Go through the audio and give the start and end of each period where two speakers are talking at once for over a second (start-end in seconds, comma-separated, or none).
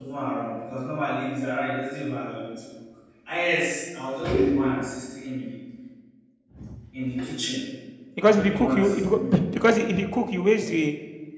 8.2-9.5